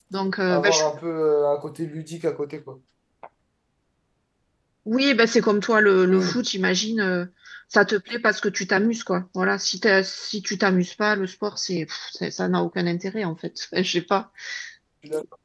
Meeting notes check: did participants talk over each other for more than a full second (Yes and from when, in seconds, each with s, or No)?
No